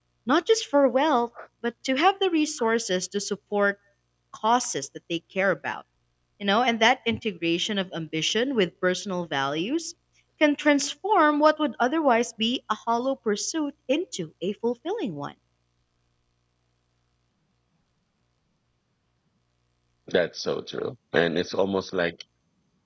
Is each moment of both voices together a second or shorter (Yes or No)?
Yes